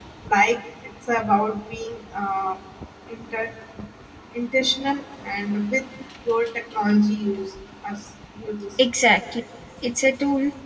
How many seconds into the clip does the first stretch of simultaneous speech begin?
none

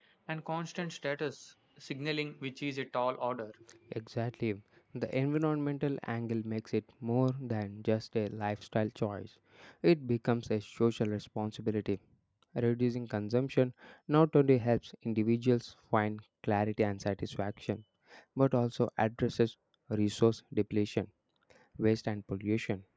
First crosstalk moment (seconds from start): none

